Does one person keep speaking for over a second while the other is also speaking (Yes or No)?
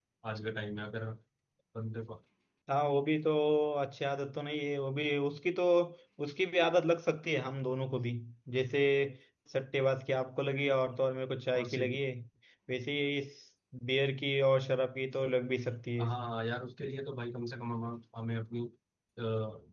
No